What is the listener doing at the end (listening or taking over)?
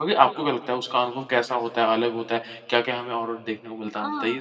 taking over